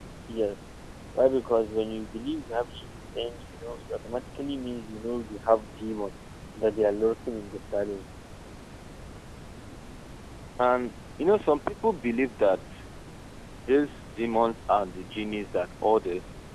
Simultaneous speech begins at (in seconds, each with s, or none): none